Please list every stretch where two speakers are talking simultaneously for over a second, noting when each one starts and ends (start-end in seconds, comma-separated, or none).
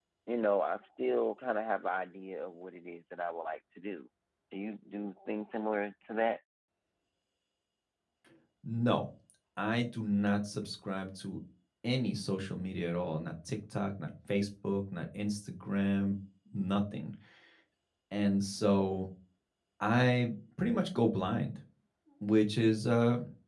none